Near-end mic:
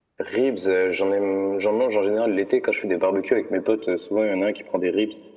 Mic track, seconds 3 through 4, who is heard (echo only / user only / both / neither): echo only